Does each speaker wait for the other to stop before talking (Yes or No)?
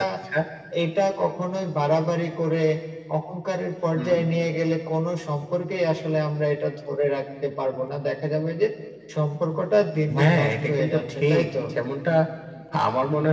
No